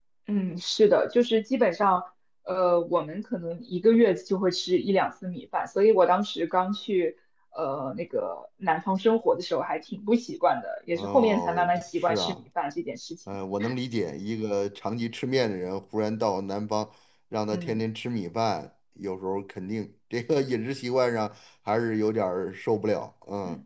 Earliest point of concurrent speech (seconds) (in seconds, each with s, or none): 10.9 s